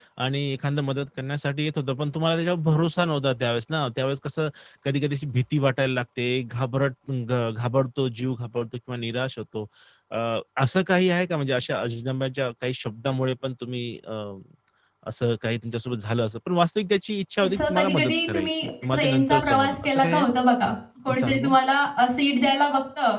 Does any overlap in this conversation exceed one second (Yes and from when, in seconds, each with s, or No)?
Yes, from 17.4 s